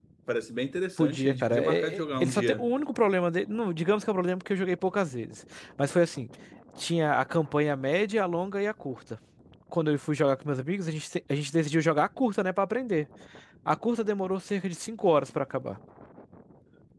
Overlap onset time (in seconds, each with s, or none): 1.0 s